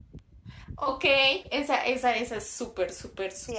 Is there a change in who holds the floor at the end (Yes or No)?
Yes